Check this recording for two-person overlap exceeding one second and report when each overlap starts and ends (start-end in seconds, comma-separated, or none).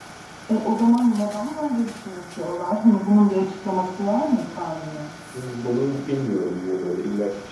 none